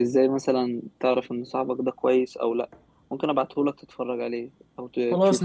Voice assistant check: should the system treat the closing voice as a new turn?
Yes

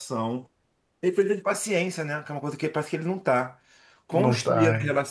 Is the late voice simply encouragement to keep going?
Yes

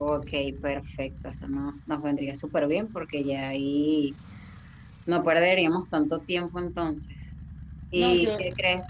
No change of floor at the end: Yes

